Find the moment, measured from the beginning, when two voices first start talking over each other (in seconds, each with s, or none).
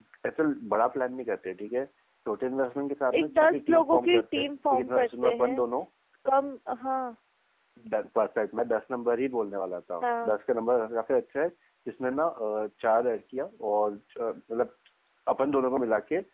3.2 s